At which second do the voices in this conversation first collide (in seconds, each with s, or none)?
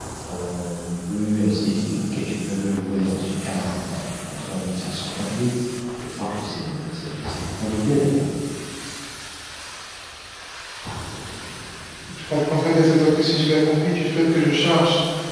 none